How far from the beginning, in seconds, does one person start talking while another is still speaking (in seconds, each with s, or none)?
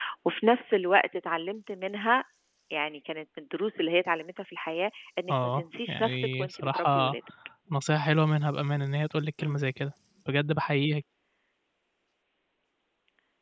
5.3 s